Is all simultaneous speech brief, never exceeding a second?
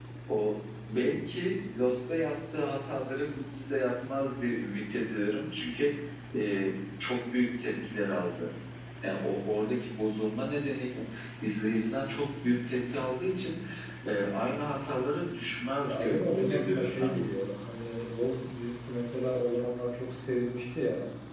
No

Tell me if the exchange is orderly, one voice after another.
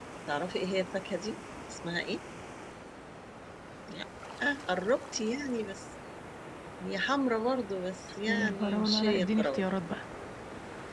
No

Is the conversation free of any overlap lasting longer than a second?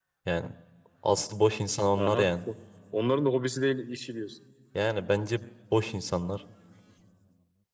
Yes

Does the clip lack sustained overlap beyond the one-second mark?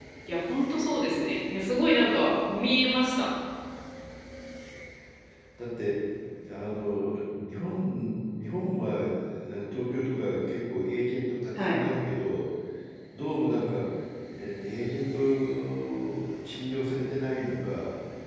Yes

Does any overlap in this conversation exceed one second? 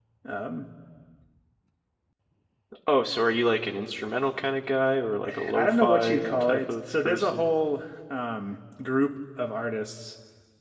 Yes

